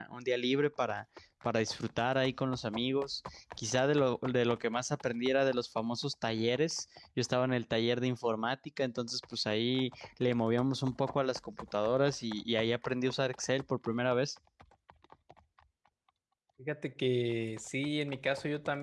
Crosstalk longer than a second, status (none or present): none